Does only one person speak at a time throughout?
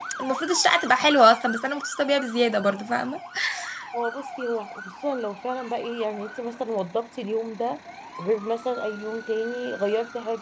Yes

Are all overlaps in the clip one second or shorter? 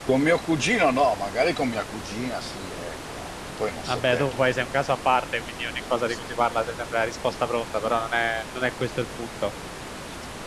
Yes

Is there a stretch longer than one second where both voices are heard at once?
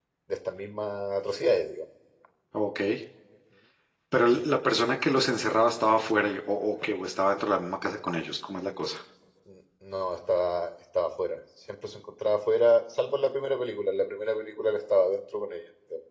No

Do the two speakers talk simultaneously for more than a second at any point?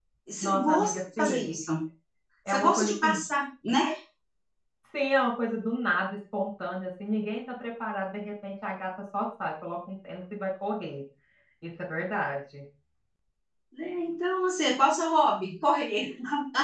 Yes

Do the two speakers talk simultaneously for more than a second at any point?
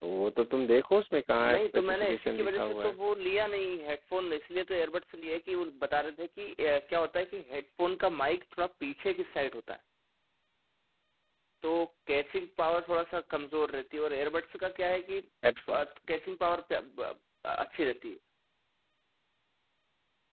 Yes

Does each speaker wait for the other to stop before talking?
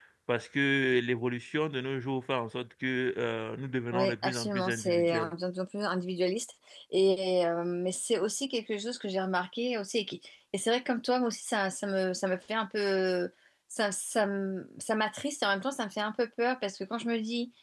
No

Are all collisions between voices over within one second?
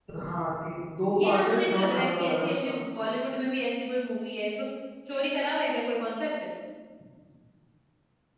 No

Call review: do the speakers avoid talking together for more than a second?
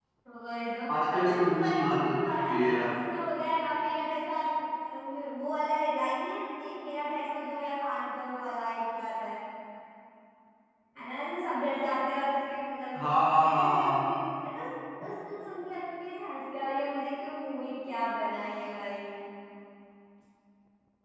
No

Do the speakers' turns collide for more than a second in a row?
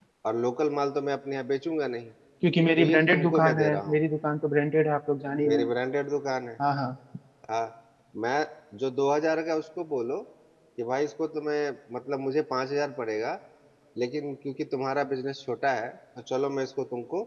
Yes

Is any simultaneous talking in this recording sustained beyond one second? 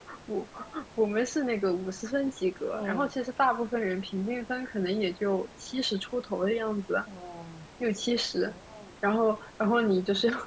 No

